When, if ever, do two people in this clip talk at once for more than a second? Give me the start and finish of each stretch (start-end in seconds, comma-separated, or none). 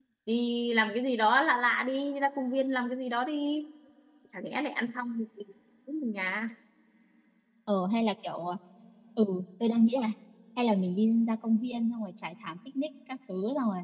none